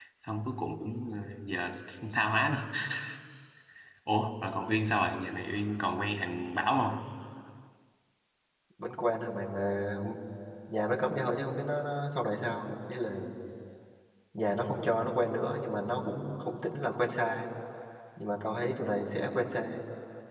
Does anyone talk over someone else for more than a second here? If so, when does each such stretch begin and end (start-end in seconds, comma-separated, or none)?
none